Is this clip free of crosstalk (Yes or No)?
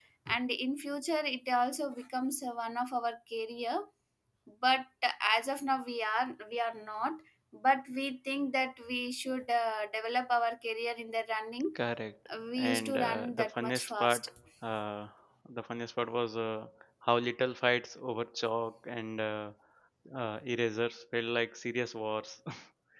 No